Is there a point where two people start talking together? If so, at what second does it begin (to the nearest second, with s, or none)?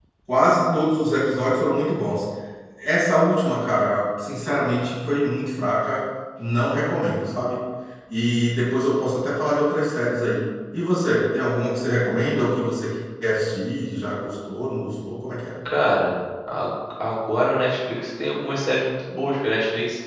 none